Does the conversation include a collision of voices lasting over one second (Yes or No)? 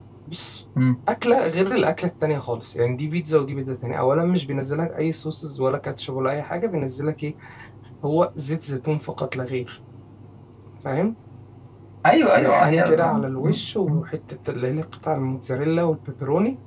Yes